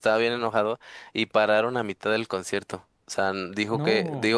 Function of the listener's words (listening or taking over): listening